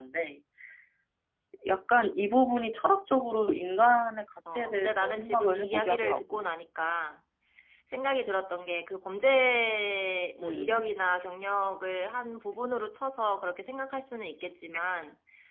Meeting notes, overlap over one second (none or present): present